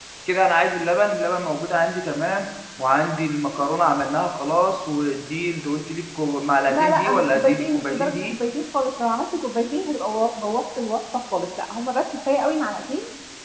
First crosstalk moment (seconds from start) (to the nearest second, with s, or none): 7 s